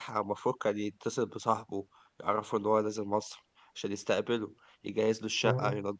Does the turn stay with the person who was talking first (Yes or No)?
Yes